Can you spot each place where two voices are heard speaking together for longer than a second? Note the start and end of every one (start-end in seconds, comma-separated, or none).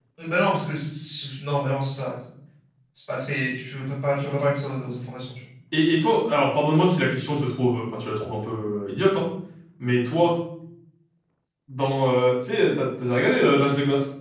none